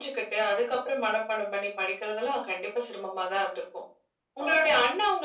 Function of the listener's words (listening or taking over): listening